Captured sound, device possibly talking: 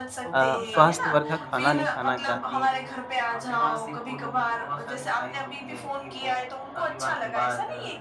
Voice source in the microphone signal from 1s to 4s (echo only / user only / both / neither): both